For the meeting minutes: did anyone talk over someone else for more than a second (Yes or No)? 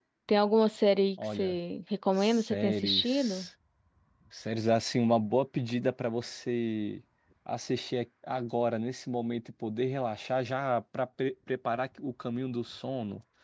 Yes